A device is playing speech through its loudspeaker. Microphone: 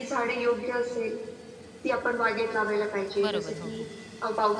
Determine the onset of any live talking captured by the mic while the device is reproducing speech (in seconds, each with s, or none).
3.2 s